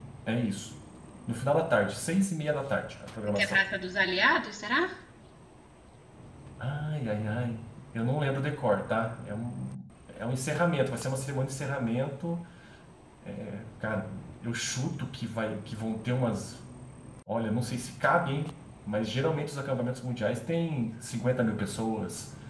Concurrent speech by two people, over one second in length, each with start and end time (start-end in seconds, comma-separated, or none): none